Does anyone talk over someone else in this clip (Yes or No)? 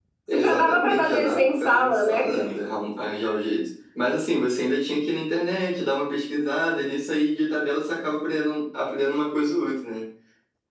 Yes